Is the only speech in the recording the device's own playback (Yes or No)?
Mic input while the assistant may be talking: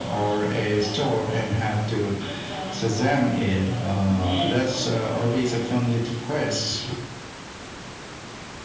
Yes